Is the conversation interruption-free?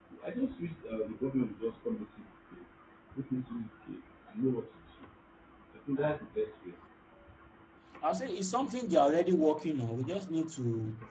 Yes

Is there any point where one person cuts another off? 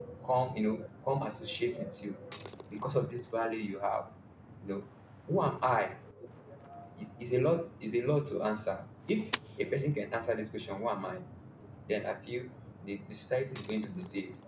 No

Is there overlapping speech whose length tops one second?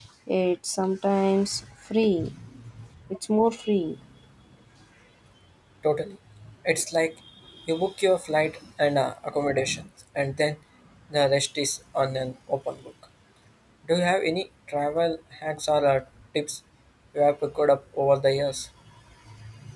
No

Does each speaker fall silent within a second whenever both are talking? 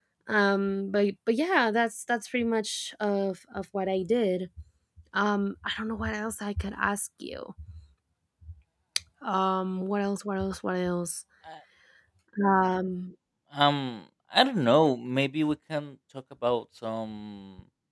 Yes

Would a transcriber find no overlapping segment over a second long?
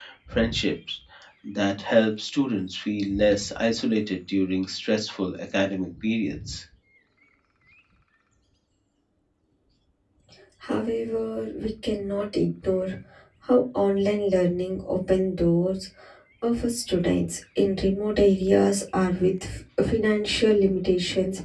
Yes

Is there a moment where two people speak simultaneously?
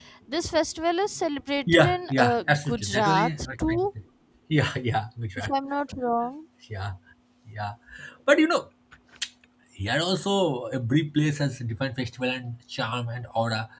Yes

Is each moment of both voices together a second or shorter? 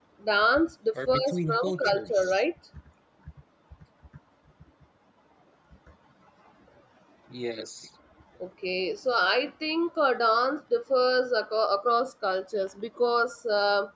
No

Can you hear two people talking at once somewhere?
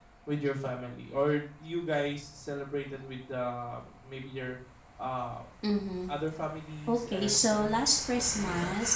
Yes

